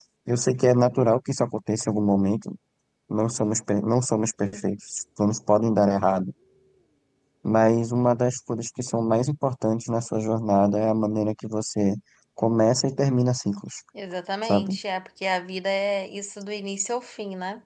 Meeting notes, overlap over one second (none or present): none